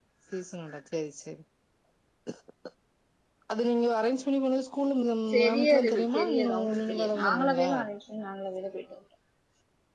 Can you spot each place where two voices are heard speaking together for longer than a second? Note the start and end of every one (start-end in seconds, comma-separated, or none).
5.3-7.7